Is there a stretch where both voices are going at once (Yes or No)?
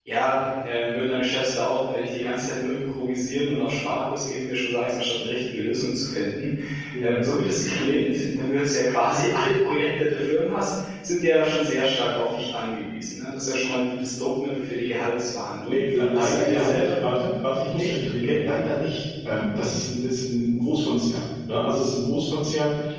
Yes